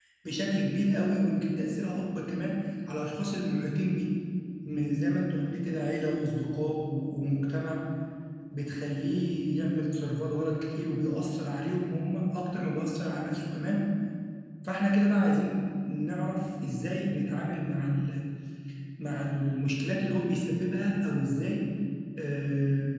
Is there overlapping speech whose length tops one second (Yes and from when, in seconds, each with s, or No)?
No